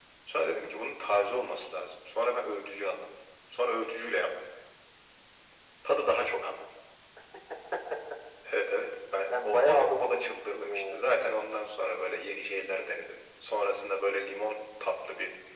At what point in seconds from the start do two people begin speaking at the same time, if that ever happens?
9.3 s

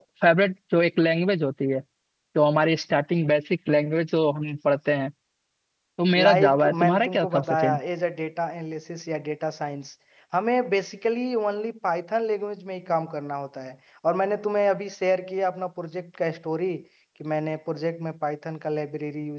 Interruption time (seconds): 6.2 s

